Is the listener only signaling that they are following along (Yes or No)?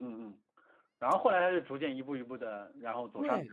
No